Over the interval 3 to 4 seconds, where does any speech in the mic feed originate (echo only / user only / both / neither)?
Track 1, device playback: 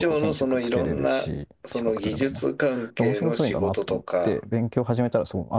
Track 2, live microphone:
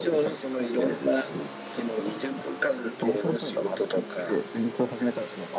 echo only